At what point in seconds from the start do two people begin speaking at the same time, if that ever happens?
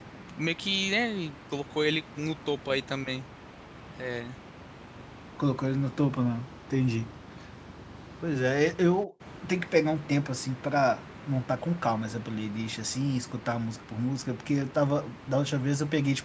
none

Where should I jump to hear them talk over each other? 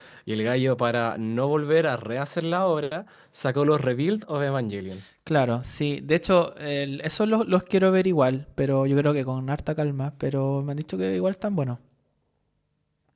none

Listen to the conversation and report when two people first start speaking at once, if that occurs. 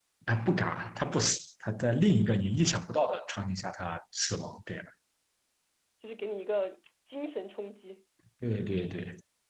none

